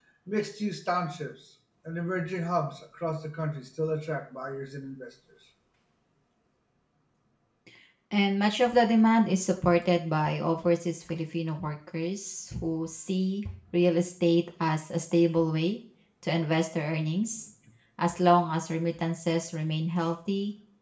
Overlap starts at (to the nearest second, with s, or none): none